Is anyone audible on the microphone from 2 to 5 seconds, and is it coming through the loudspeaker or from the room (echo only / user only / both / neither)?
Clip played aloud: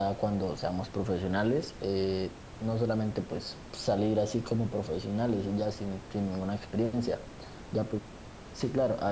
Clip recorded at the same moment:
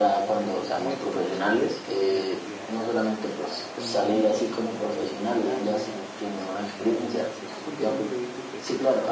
both